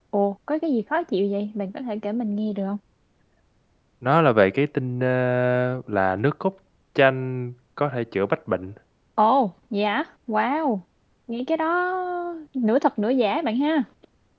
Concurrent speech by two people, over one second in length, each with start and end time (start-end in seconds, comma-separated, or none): none